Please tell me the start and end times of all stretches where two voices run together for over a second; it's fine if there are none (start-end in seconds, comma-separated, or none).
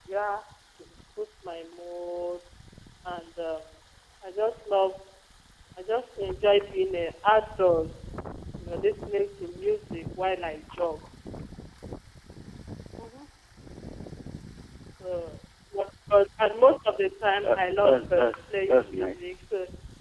17.4-19.2